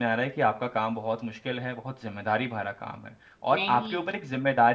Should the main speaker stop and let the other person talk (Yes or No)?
No